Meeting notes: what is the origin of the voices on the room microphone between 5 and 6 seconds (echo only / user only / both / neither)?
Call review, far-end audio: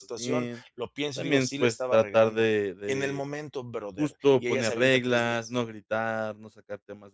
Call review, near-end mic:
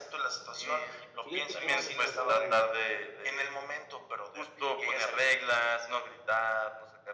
echo only